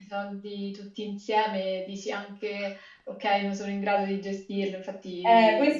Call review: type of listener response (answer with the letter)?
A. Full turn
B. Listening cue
A